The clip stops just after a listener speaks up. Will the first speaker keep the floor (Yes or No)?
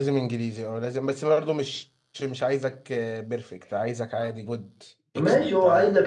No